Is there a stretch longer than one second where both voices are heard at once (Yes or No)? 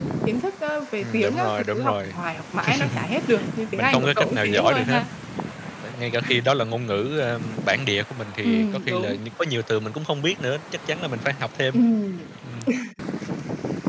Yes